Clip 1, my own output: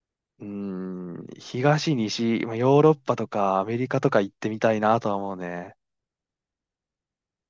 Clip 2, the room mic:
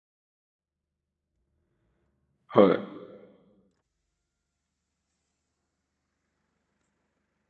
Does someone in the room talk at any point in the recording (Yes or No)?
Yes